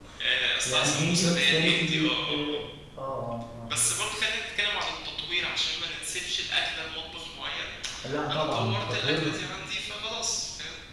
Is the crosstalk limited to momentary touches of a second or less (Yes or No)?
No